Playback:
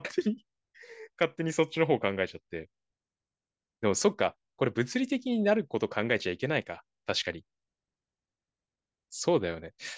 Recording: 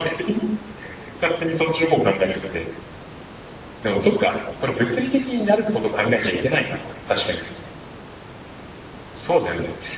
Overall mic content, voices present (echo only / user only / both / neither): echo only